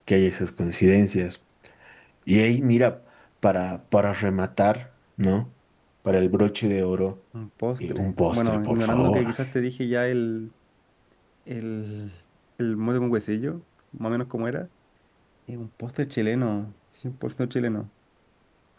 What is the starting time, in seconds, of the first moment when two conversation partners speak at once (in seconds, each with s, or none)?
7.8 s